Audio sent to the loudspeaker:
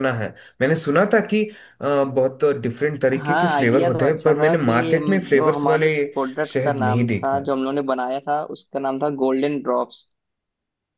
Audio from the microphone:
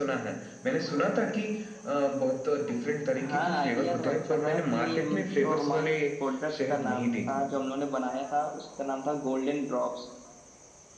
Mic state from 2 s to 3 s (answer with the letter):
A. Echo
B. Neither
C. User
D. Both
A